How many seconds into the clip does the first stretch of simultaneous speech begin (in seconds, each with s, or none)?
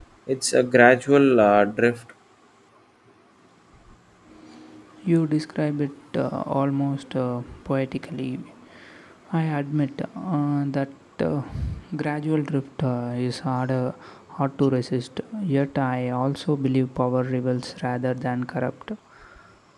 none